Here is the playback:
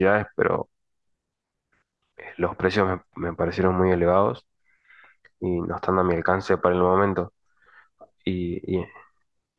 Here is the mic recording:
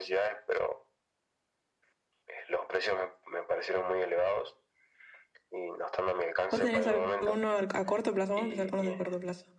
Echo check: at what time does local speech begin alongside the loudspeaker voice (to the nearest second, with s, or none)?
6 s